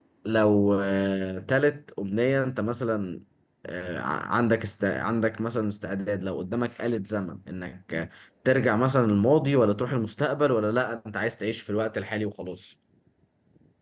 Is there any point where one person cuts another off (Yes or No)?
No